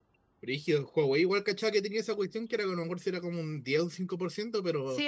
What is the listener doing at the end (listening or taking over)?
taking over